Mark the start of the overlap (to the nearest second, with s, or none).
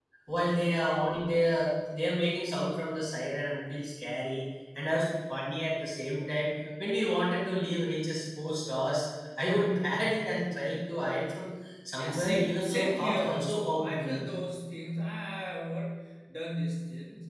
12 s